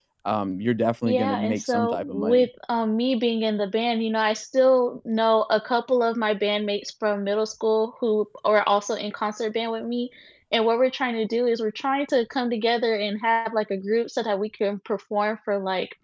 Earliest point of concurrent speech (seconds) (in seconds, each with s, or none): 1.0 s